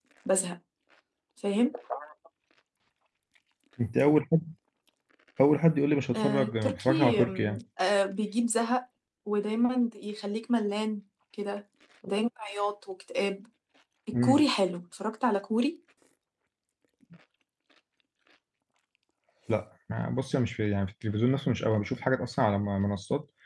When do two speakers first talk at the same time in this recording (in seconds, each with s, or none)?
6.2 s